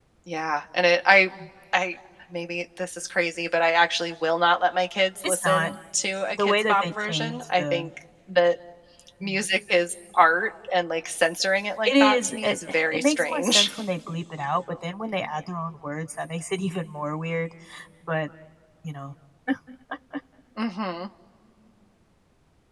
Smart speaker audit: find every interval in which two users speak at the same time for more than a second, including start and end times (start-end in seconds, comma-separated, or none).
6.3-7.9, 11.8-13.7